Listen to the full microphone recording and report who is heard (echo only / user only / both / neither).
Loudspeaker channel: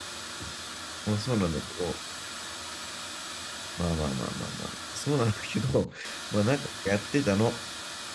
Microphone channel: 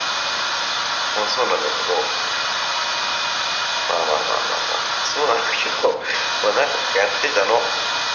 echo only